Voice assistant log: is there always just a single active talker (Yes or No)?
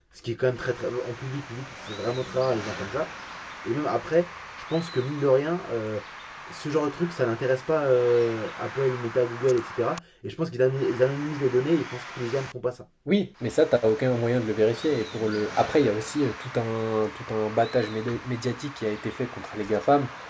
Yes